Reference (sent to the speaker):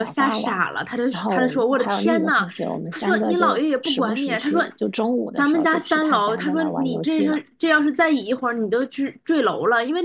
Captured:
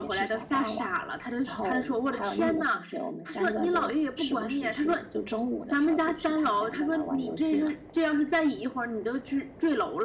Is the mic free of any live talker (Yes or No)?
Yes